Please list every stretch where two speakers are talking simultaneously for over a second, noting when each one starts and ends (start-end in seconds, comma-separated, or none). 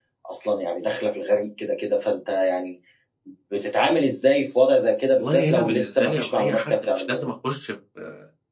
5.1-7.3